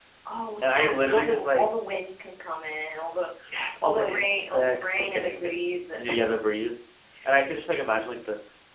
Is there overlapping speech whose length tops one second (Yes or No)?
Yes